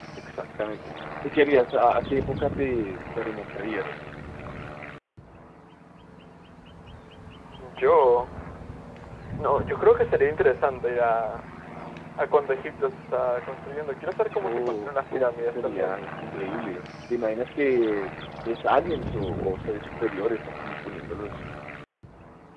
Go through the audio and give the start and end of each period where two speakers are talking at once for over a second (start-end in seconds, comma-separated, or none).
14.4-15.9